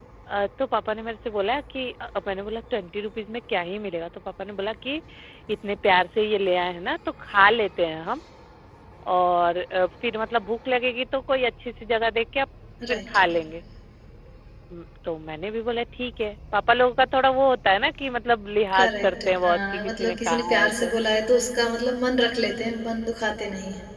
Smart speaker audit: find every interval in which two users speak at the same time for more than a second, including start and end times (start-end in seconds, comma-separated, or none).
18.8-20.9